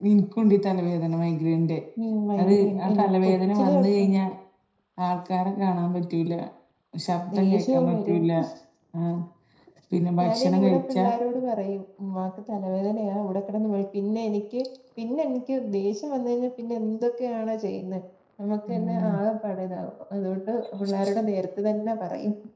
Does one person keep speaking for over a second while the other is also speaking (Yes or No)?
Yes